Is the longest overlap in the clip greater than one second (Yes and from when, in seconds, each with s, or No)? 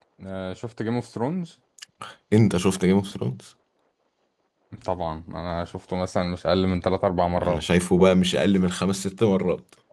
No